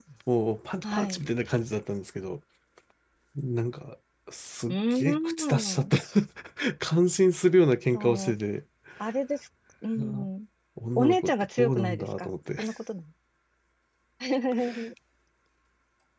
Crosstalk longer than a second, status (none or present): present